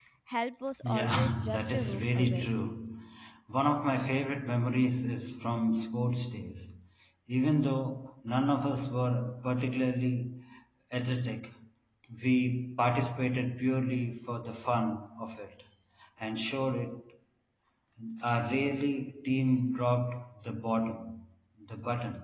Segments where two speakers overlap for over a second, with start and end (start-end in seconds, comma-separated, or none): 0.8-2.5